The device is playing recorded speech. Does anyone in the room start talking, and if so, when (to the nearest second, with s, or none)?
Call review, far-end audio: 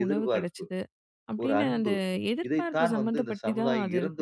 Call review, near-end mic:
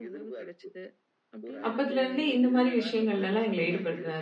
2 s